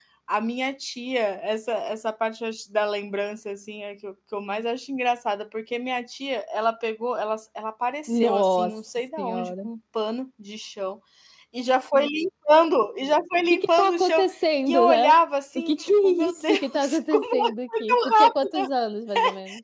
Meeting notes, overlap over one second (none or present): present